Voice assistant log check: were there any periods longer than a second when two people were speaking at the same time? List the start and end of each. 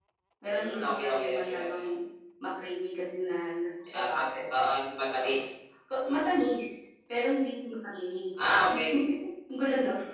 0.6-1.9

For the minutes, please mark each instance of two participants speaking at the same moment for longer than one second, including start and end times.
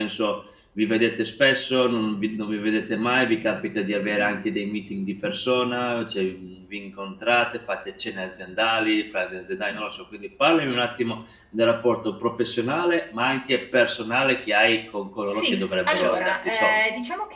15.3-16.8

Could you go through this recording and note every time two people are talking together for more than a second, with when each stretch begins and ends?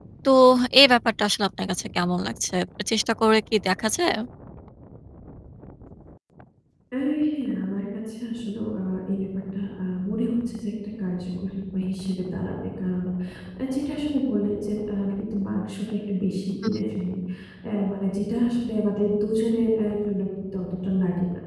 none

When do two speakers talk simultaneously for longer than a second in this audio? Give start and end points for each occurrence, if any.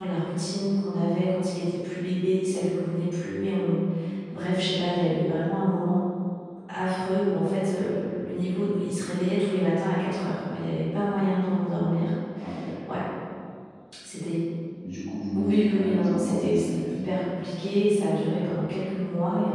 15.4-16.9

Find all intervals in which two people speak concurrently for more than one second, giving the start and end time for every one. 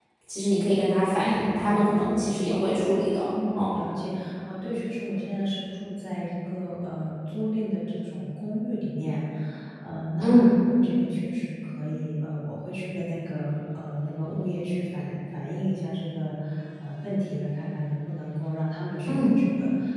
none

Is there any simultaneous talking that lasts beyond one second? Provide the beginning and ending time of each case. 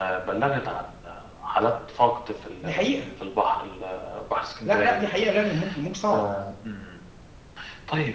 none

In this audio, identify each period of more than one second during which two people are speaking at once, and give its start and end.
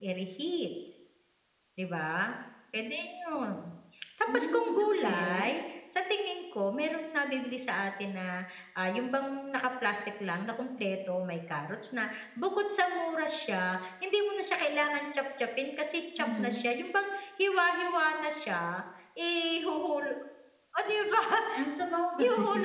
4.3-5.5

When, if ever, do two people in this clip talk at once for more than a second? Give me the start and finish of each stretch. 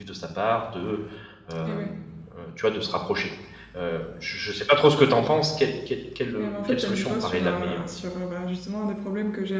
6.3-7.8

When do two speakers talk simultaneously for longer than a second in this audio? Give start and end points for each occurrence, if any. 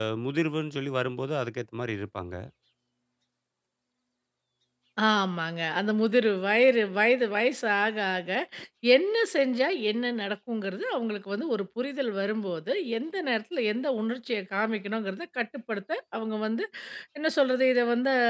none

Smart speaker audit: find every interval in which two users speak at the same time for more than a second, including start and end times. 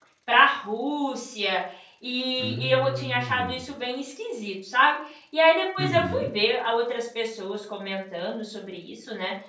2.4-3.6

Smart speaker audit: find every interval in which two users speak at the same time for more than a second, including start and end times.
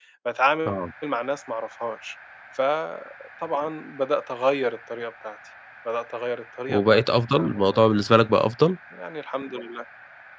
6.7-8.0

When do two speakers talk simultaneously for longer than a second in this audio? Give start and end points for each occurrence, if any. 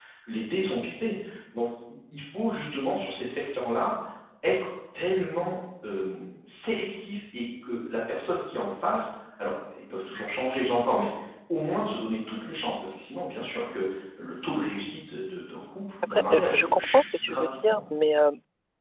16.3-17.8

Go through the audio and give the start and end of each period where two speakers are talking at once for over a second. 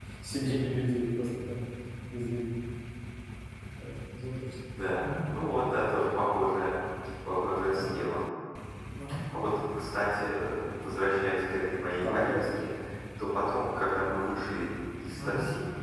none

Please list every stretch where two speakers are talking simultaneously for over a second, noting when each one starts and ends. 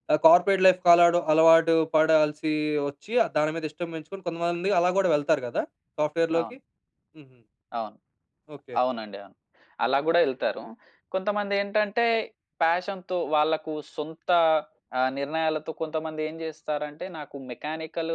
none

